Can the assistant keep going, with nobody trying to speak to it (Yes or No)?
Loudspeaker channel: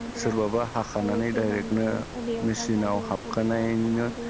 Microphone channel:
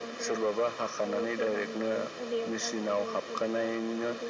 Yes